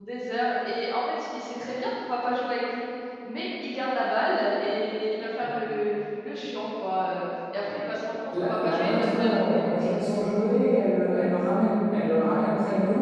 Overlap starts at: 8.3 s

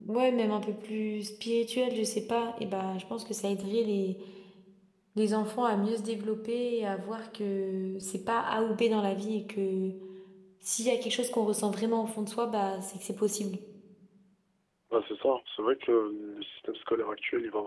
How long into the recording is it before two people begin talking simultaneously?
none

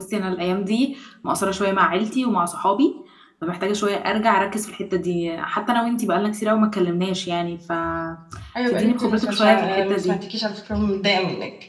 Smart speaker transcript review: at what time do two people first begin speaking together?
8.7 s

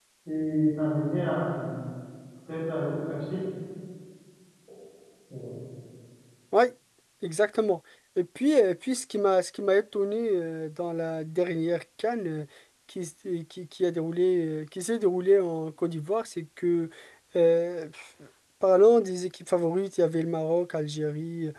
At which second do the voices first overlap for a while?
none

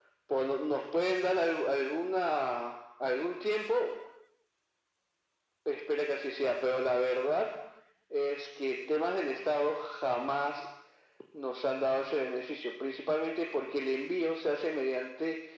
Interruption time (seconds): none

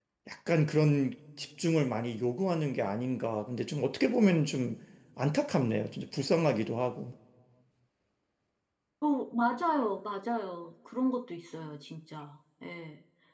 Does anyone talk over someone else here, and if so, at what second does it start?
none

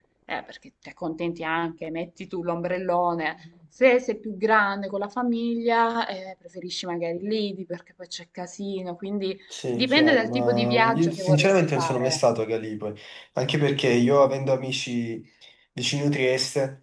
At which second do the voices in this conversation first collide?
9.8 s

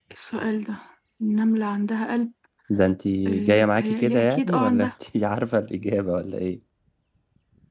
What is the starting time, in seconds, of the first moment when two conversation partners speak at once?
3.3 s

